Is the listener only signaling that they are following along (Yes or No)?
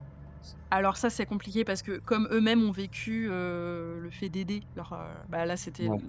Yes